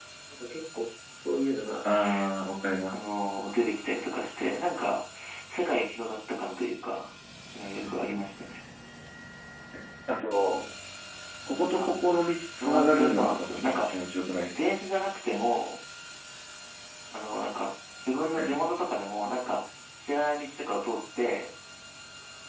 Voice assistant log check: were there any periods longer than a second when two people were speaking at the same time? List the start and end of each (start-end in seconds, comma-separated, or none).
12.6-13.9